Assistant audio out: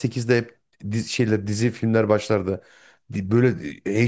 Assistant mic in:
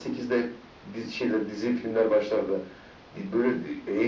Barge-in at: none

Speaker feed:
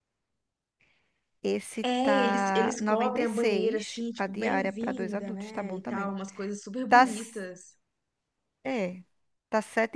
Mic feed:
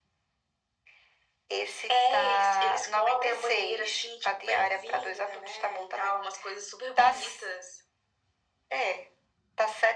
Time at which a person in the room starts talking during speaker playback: none

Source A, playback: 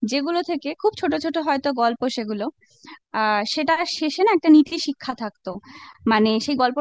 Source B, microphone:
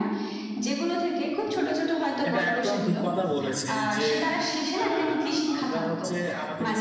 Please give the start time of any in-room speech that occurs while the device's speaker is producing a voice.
2.3 s

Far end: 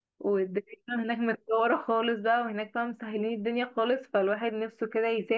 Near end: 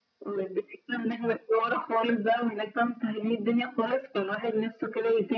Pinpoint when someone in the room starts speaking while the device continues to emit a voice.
none

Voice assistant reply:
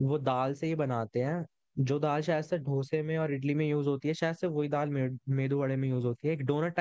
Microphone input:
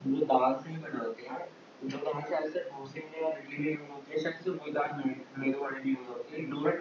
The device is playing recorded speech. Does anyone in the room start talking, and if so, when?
none

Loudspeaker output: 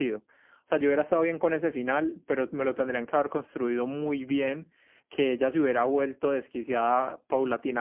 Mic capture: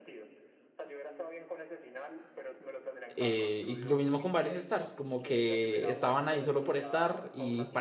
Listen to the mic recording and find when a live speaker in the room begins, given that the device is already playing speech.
3.1 s

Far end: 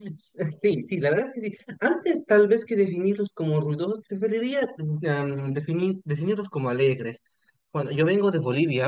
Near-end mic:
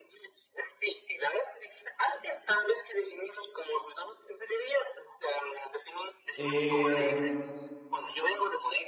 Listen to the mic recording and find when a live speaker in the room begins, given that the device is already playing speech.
6.4 s

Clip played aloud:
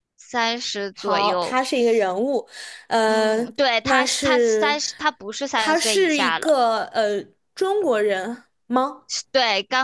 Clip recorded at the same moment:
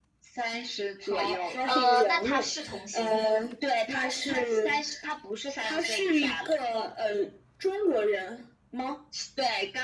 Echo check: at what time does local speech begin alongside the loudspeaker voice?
1.6 s

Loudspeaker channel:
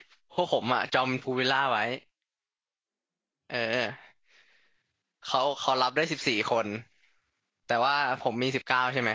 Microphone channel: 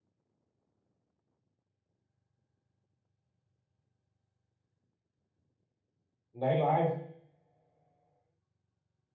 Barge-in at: 6.4 s

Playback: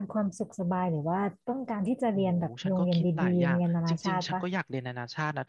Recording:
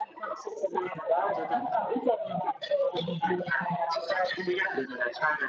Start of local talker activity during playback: 1.1 s

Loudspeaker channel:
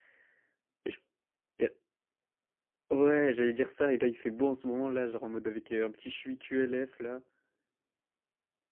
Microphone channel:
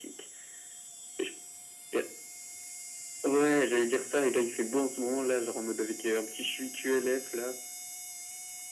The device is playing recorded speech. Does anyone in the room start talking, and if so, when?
none

